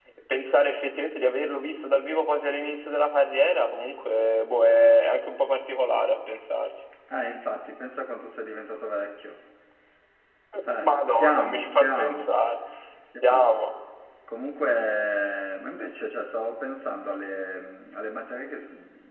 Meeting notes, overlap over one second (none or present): present